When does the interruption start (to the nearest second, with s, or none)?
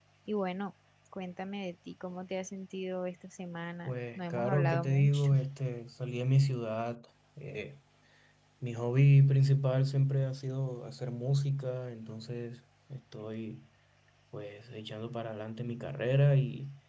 4 s